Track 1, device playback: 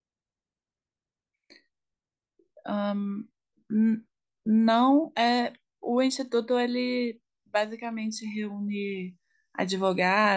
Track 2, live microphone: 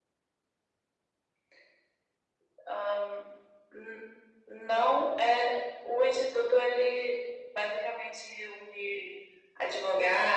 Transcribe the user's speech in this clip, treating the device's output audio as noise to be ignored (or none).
none